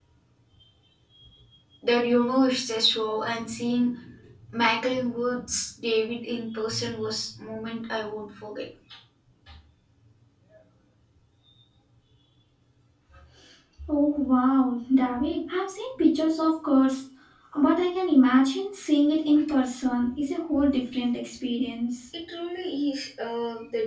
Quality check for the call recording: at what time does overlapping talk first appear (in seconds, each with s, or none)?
none